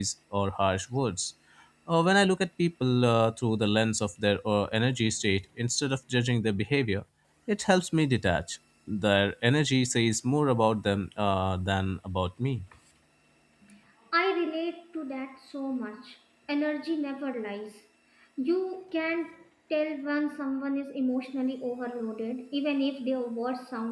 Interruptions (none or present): none